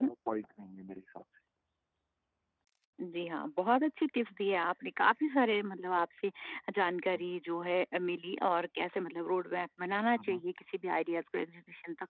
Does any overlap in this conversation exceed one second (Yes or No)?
No